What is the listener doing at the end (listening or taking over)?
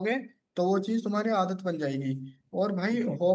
listening